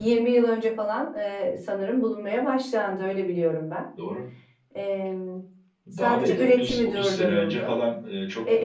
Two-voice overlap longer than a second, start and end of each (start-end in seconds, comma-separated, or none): 6.0-7.8